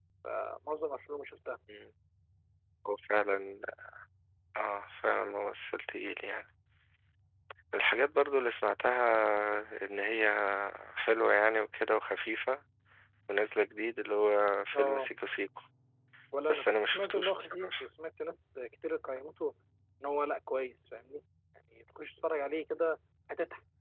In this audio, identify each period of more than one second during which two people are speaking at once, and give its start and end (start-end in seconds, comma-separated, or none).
16.5-17.7